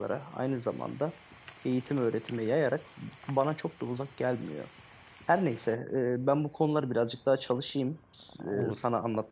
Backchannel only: Yes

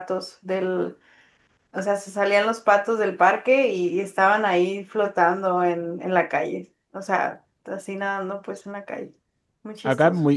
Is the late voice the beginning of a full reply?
Yes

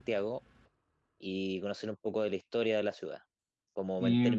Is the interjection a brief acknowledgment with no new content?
Yes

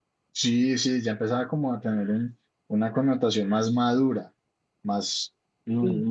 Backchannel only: Yes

